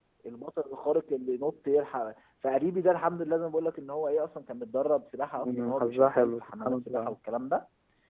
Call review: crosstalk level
present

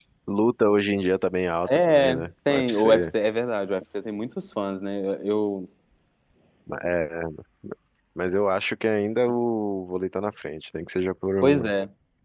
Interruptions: present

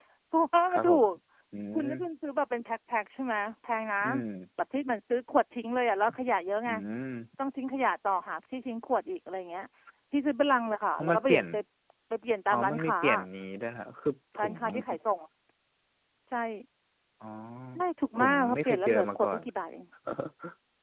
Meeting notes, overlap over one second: present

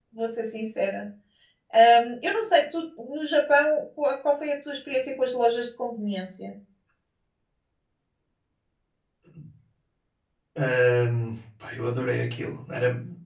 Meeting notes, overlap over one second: none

